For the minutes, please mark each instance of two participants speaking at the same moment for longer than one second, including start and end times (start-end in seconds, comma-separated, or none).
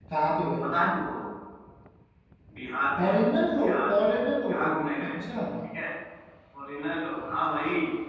none